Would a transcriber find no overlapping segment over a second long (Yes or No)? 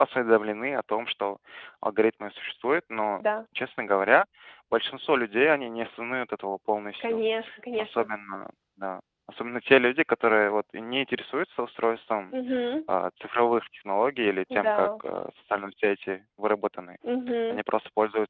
Yes